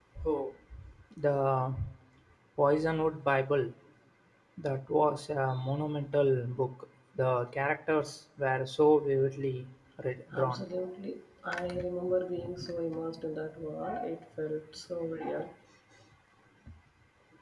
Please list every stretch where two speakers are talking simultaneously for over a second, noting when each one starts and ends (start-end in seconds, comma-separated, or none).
none